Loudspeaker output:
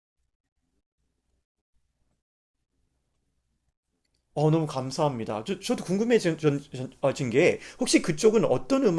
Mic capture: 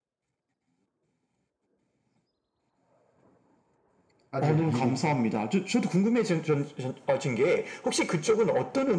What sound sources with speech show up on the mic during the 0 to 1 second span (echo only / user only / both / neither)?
neither